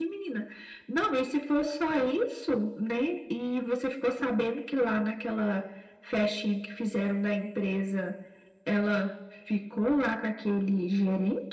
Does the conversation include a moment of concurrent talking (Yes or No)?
No